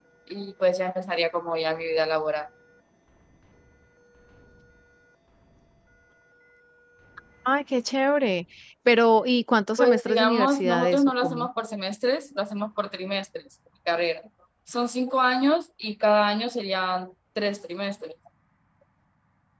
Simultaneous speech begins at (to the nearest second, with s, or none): 10 s